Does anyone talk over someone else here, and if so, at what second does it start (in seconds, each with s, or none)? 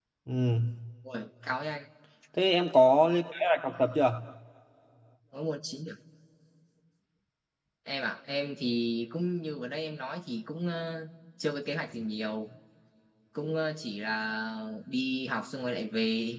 none